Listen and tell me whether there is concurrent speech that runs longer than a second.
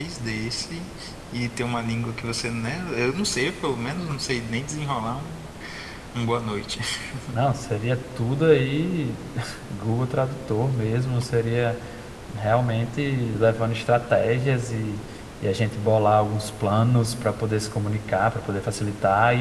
No

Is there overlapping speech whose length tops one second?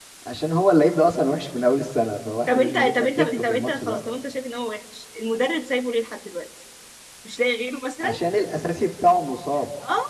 Yes, from 2.5 s

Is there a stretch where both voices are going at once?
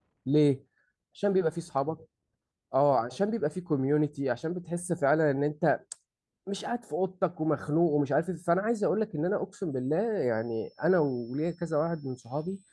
No

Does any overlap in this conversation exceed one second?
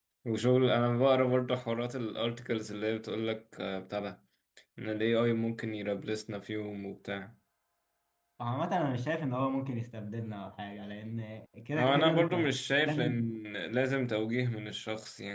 Yes, from 11.7 s

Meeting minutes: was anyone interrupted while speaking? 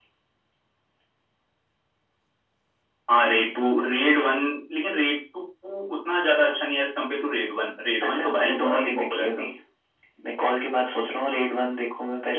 Yes, from 8.0 s

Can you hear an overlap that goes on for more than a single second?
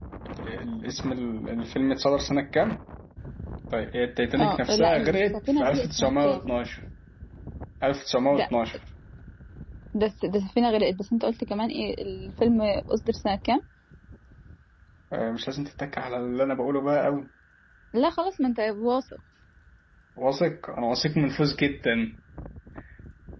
Yes, from 4.4 s

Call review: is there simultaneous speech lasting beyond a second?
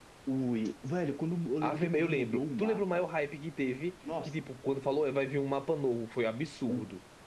Yes, from 1.6 s

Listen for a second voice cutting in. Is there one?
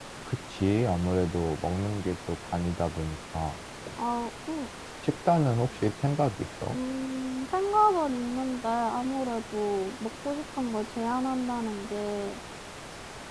No

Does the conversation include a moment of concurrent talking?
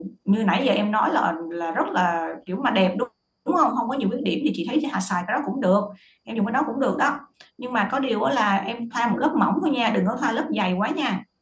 No

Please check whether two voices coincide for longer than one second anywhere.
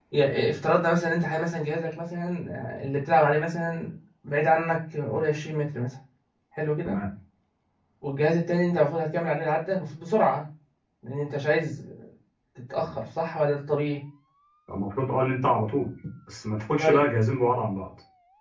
No

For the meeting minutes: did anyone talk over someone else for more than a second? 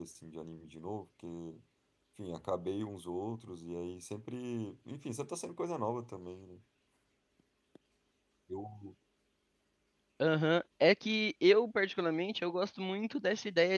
No

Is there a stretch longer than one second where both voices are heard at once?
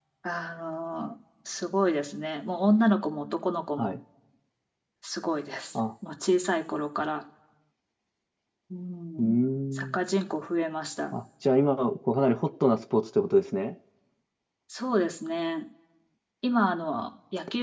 No

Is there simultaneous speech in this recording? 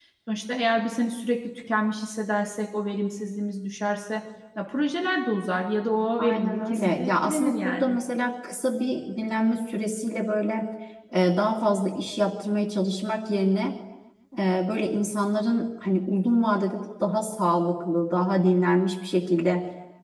Yes, from 6.2 s

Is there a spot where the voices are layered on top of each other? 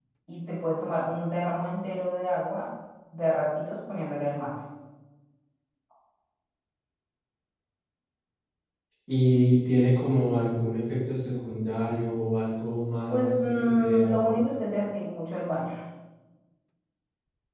Yes, from 13.1 s

